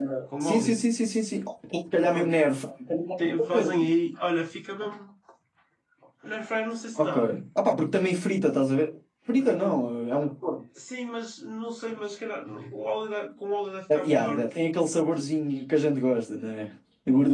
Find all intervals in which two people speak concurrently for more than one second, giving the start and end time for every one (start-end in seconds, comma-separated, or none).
none